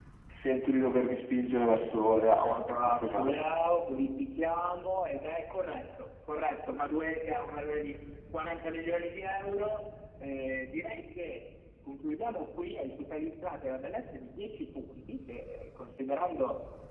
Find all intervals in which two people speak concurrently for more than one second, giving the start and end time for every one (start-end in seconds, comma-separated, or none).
2.0-3.4